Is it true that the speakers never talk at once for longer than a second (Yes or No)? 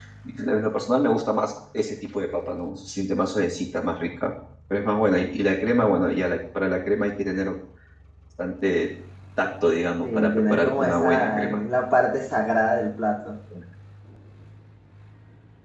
No